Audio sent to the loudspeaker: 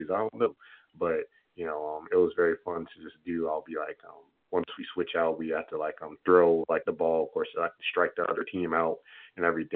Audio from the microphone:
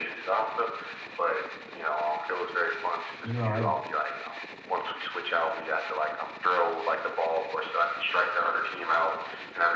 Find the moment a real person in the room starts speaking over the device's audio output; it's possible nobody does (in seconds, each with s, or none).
3.2 s